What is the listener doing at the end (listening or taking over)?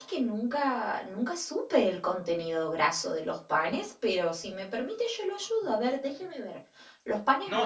taking over